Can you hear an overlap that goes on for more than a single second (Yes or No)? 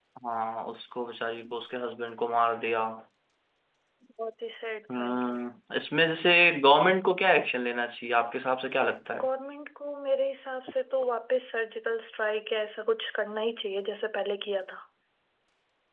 No